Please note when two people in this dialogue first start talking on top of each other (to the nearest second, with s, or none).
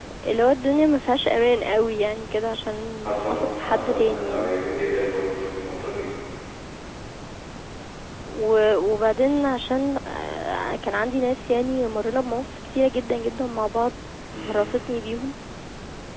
3 s